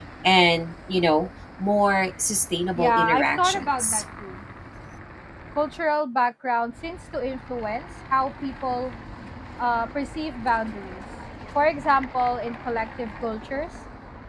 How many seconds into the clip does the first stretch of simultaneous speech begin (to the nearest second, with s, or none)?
3 s